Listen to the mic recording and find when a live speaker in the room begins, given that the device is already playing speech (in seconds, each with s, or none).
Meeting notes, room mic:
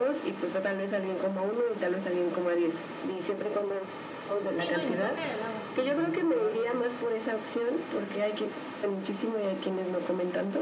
4.5 s